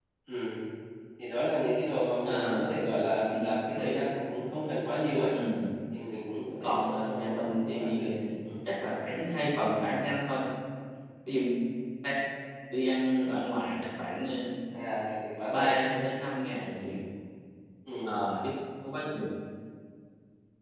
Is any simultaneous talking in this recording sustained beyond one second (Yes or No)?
Yes